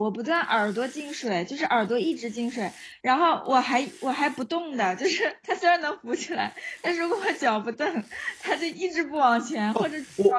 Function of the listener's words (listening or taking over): taking over